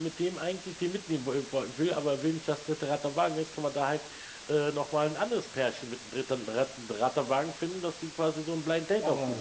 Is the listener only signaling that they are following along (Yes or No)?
No